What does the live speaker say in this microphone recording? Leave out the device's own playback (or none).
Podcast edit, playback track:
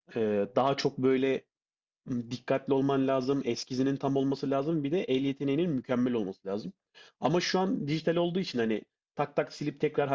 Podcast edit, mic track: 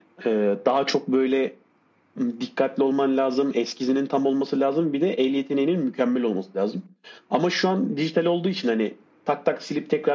none